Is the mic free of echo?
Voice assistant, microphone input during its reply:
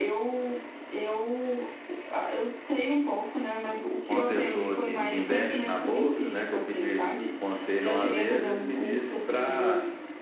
No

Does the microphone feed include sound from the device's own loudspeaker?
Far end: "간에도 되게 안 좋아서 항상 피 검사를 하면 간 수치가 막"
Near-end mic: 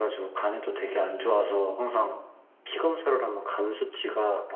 Yes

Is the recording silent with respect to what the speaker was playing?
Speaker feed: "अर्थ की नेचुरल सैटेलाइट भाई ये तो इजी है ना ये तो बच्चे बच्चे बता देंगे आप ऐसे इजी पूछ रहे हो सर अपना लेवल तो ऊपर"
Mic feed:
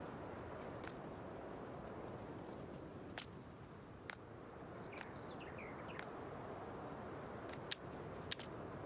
Yes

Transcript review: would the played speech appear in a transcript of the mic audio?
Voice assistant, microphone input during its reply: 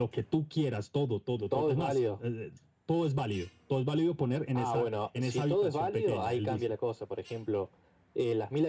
Yes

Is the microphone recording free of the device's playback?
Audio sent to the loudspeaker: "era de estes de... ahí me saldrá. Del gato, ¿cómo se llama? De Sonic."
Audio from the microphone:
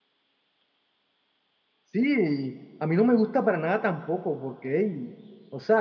Yes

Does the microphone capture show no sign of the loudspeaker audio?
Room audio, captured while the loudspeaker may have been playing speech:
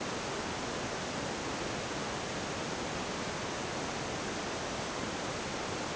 Yes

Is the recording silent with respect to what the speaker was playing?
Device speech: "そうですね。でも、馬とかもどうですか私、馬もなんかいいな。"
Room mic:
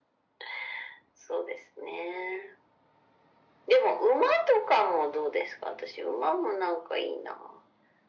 No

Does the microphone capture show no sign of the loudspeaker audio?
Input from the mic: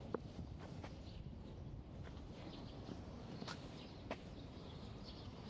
Yes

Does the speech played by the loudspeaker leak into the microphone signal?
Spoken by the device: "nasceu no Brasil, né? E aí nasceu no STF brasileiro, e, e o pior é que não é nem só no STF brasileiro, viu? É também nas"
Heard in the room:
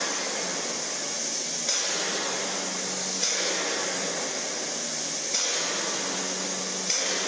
No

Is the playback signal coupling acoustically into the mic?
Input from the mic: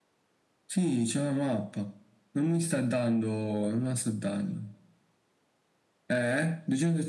Yes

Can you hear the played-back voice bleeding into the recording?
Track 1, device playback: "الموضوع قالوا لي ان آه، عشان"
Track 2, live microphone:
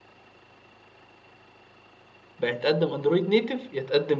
No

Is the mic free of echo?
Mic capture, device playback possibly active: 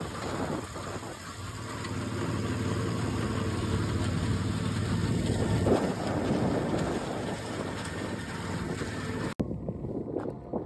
Yes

